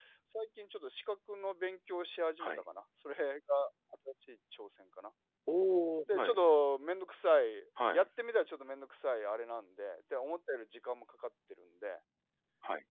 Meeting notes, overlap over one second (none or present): none